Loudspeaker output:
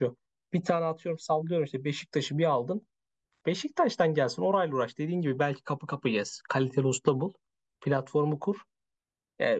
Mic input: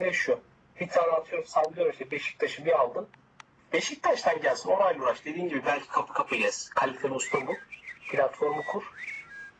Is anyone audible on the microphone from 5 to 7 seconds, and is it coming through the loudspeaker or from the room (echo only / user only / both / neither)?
echo only